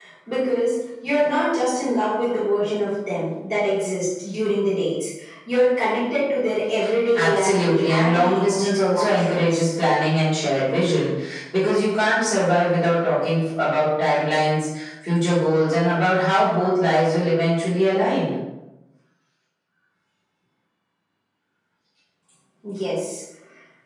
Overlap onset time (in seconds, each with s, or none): 7.1 s